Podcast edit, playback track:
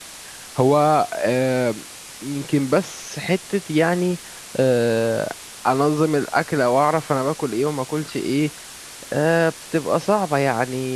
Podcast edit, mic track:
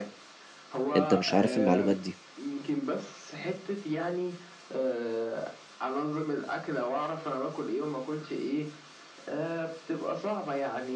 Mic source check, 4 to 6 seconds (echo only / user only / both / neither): echo only